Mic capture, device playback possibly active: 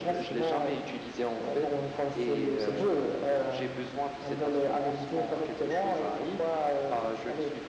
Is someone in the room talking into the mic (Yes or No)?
No